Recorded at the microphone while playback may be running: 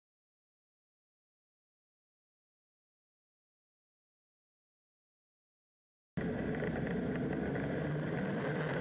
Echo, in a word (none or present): none